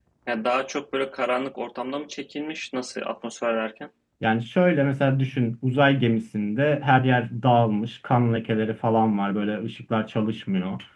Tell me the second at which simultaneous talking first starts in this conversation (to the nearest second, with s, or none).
none